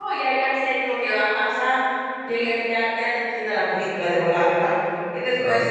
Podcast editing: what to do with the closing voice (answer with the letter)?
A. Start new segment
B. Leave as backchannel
B